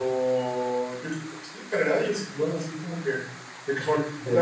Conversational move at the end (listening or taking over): listening